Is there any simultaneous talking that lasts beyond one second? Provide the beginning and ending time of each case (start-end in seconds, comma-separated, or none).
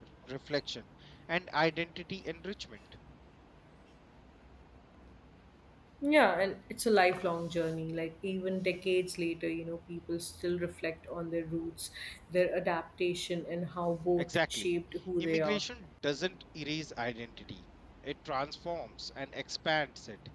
none